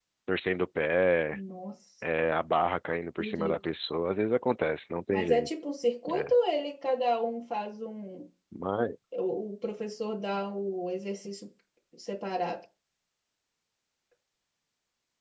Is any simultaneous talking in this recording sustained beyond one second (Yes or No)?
No